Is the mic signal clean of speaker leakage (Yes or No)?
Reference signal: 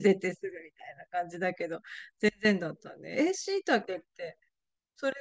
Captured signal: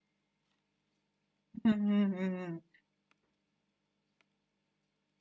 Yes